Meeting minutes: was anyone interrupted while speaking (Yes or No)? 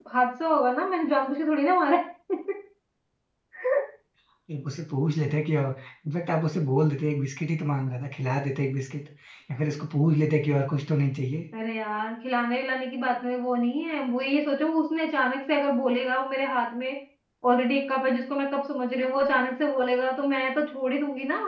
No